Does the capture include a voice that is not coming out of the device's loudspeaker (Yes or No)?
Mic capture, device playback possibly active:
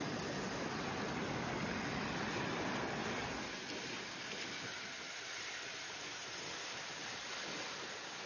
No